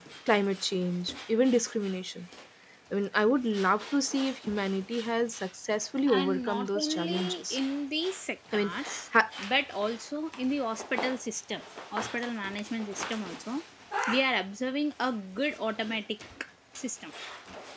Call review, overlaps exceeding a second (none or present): present